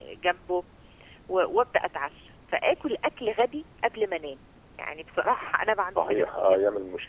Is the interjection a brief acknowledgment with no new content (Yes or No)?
No